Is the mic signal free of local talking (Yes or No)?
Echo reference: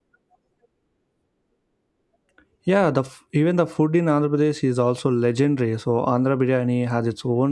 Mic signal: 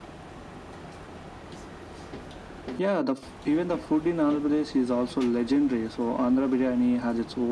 Yes